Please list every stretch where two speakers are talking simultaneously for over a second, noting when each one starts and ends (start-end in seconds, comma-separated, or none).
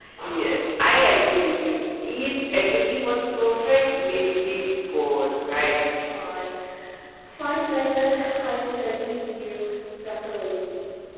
none